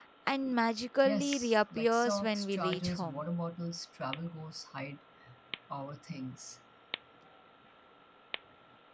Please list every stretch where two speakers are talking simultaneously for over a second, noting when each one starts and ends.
1.0-3.2

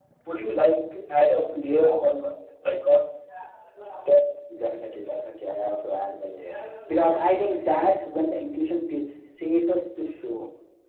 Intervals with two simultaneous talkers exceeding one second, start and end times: none

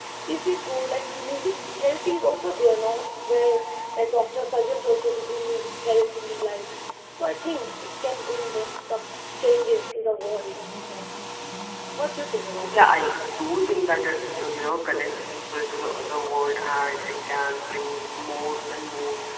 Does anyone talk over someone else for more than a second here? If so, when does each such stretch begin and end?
none

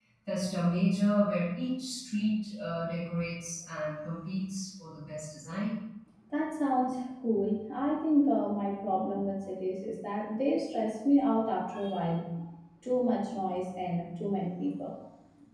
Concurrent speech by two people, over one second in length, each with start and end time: none

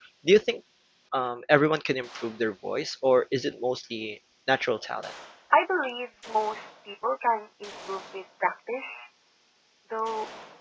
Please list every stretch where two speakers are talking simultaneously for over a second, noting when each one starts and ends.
none

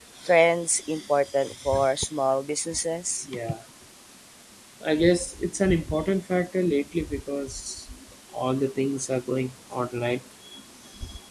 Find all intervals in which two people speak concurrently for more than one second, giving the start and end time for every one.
none

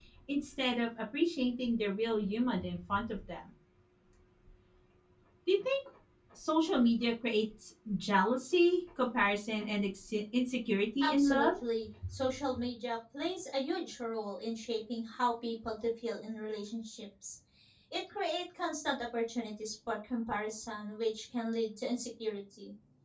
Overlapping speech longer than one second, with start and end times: none

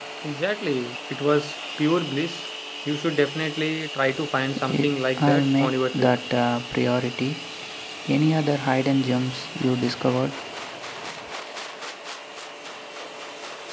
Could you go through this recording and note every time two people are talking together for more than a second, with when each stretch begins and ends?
4.6-6.1

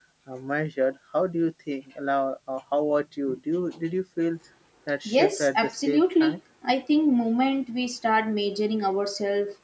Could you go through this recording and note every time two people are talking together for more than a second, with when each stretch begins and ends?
5.1-6.4

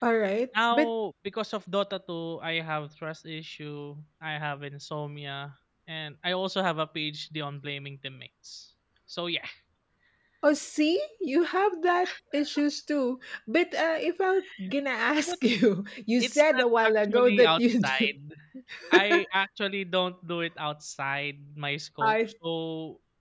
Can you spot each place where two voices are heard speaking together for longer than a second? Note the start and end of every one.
16.2-18.1

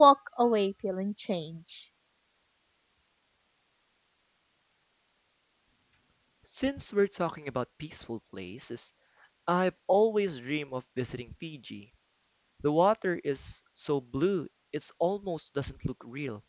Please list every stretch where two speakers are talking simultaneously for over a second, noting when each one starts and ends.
none

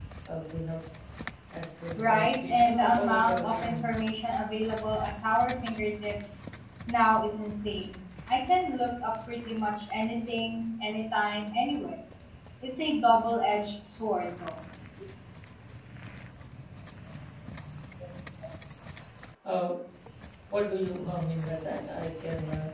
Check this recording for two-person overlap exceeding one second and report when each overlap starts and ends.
2.0-3.9

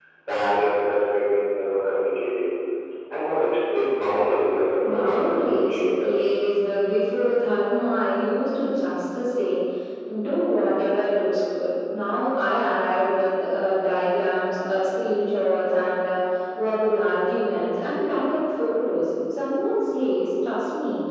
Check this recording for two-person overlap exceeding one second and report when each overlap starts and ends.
4.8-6.1

